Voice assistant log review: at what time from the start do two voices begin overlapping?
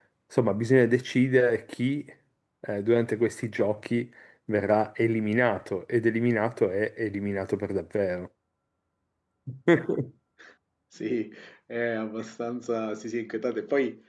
none

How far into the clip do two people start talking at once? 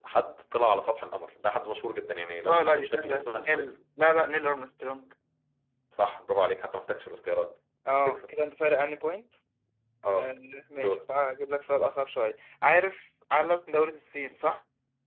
2.5 s

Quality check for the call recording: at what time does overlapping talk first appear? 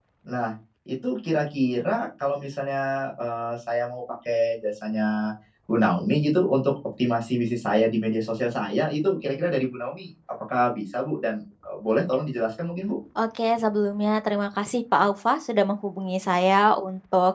none

